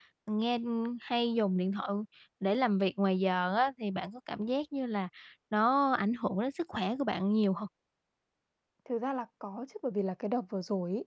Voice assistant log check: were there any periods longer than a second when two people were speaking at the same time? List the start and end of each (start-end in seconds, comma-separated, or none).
none